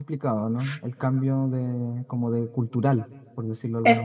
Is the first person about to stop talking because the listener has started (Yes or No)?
Yes